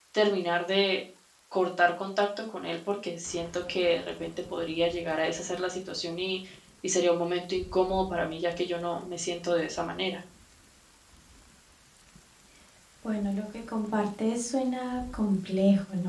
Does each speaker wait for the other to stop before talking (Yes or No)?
Yes